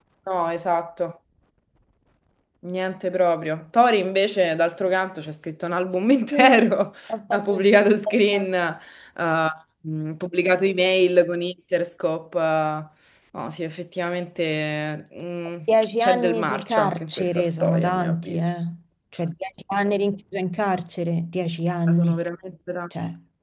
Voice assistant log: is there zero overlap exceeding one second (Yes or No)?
No